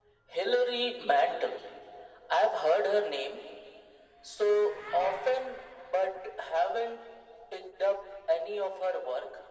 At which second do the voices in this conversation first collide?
none

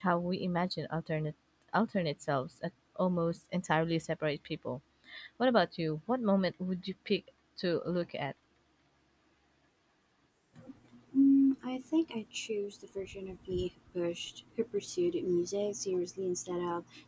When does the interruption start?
none

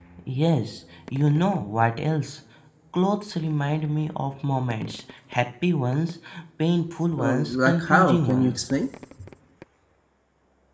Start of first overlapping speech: 7.2 s

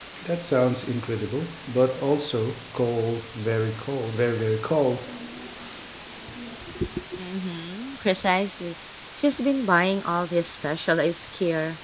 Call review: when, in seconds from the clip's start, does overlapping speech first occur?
none

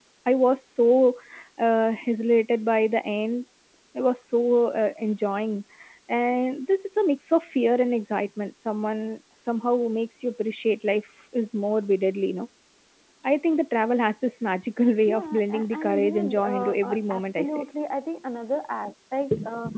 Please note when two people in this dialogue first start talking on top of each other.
15.1 s

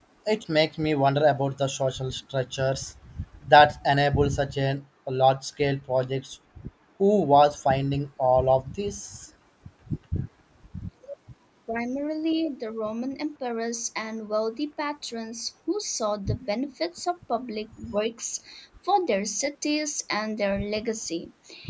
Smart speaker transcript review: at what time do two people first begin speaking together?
none

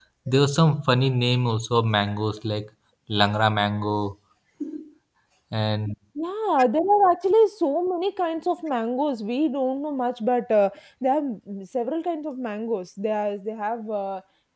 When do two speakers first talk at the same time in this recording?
none

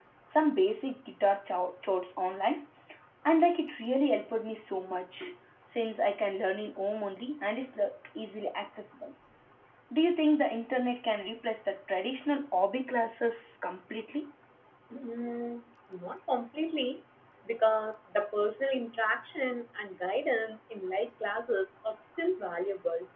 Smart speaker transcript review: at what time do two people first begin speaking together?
none

